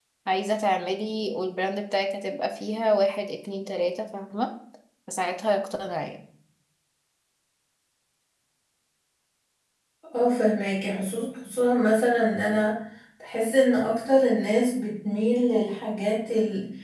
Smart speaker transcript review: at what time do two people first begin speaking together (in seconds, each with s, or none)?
none